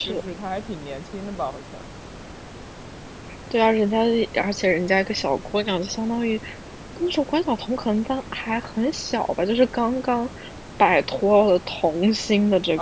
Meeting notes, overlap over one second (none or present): none